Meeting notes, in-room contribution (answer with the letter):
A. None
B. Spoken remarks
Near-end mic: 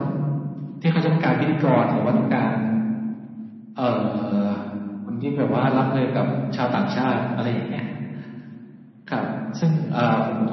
A